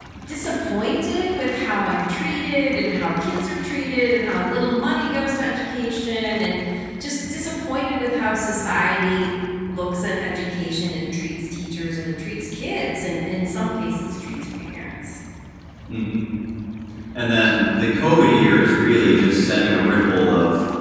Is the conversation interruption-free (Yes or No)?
Yes